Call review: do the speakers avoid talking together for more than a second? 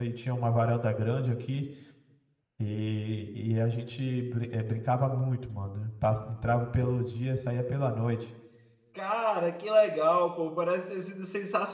Yes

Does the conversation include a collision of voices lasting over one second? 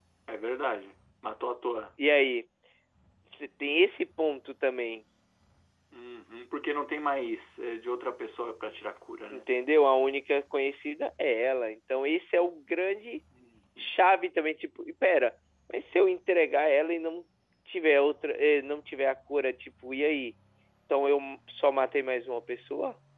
No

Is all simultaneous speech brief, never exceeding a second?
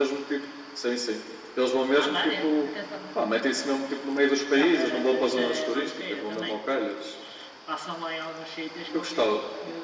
No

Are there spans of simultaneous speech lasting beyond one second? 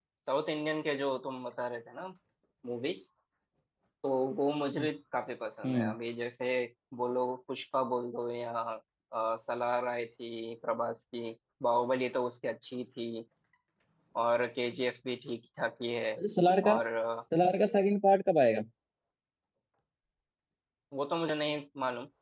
No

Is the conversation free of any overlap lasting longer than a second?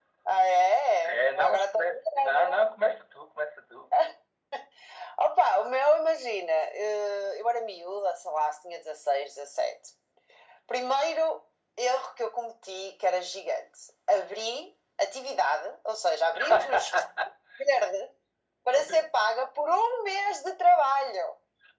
No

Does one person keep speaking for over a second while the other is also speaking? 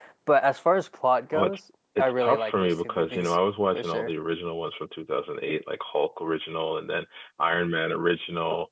Yes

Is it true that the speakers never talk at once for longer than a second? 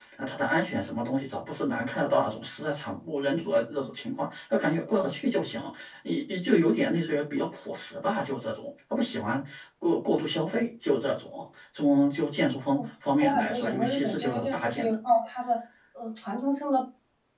No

